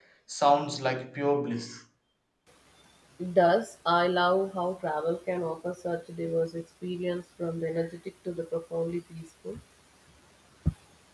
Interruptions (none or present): none